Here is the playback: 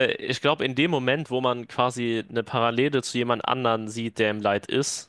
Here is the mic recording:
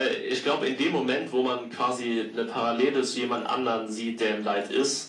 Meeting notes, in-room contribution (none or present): none